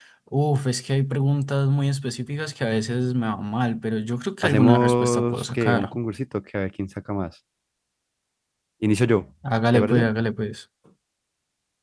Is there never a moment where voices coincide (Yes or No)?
No